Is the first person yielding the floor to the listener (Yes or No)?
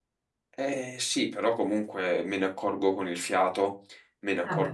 No